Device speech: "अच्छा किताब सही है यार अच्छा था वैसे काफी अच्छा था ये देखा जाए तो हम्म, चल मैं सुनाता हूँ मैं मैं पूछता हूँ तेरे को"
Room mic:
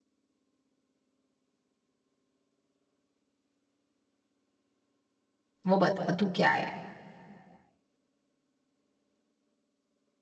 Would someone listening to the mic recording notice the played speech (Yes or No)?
No